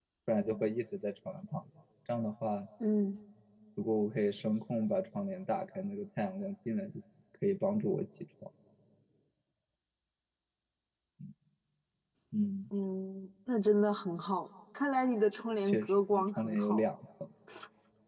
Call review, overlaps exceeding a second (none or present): present